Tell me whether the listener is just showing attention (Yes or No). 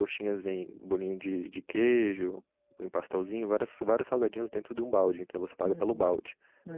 No